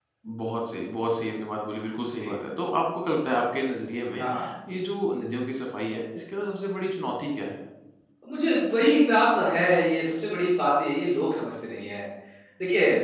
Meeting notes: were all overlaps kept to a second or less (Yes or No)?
Yes